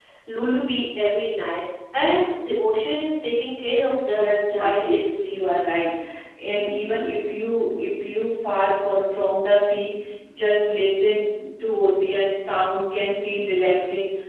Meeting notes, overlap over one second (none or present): present